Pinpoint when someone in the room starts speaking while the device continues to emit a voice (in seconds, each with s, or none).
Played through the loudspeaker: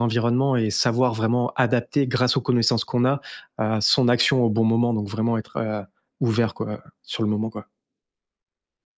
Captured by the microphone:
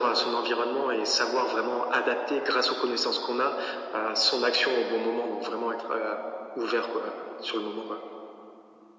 none